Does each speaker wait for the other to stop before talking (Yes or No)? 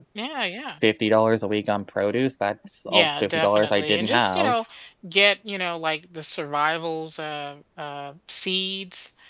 No